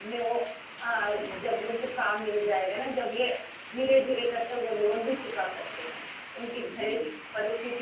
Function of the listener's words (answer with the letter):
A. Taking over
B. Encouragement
B